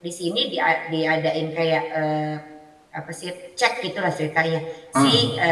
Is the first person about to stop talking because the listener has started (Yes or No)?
No